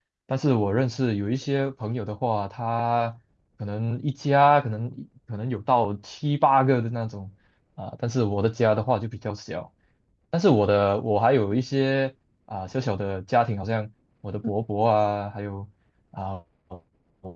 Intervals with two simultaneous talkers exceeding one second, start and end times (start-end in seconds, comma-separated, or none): none